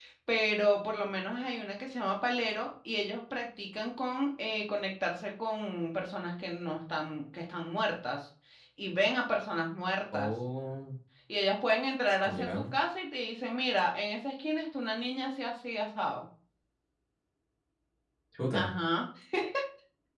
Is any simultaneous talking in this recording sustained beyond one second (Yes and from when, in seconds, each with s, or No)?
No